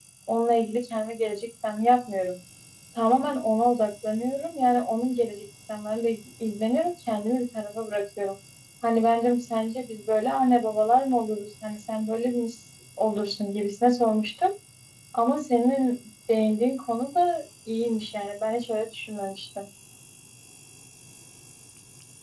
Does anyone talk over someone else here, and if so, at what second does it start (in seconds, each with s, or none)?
none